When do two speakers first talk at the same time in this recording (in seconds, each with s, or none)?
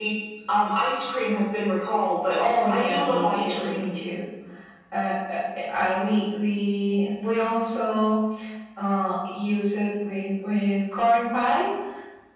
2.3 s